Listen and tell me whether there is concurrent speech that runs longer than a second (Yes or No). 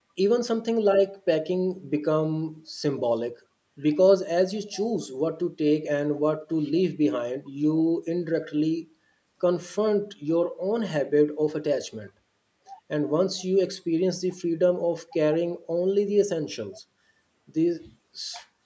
No